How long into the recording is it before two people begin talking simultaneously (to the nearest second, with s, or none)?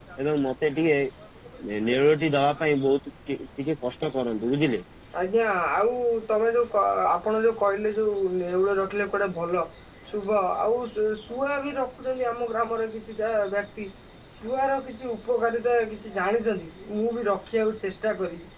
none